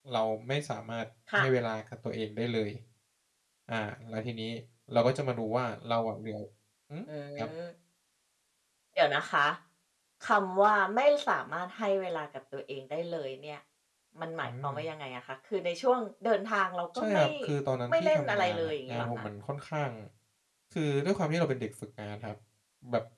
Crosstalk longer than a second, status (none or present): present